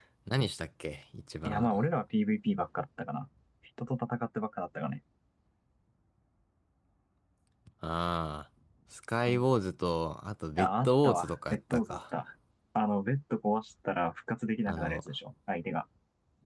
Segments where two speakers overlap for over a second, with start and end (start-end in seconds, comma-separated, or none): 10.6-12.0